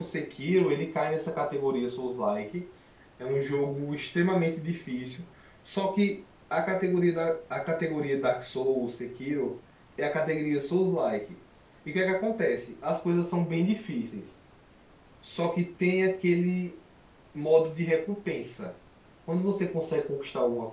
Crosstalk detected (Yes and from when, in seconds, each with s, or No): No